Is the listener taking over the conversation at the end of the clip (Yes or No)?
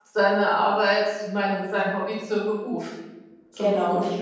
Yes